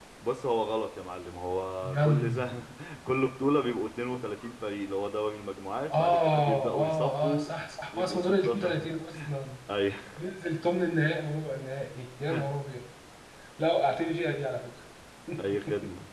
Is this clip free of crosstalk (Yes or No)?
No